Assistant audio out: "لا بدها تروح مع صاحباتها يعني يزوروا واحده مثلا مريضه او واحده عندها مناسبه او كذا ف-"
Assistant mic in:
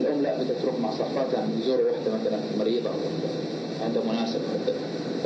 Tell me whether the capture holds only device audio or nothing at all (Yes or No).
Yes